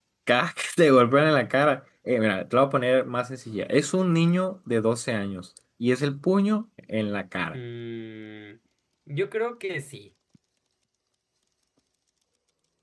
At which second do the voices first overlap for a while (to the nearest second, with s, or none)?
none